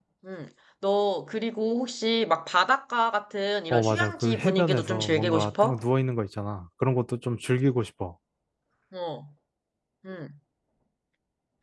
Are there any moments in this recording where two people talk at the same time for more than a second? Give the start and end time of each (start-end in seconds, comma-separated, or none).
3.7-5.8